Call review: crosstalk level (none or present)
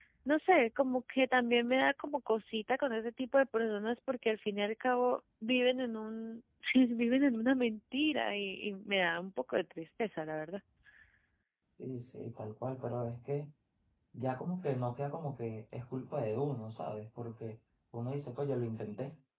none